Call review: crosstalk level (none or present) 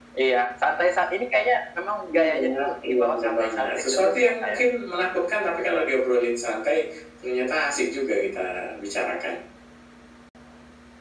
present